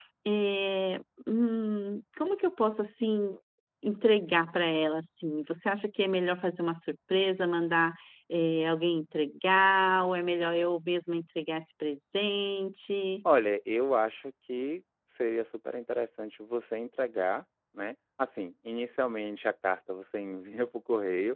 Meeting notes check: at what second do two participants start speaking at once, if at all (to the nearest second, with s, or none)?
none